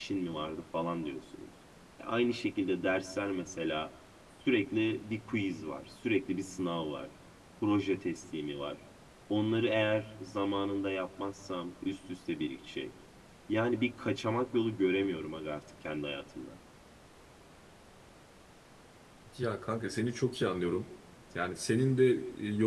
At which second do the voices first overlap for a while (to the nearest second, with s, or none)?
none